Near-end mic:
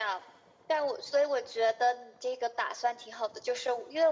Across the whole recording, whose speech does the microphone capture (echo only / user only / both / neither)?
echo only